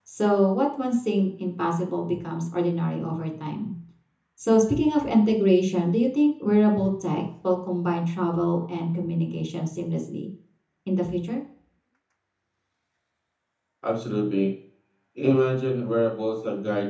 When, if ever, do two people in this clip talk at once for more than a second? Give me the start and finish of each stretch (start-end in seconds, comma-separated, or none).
none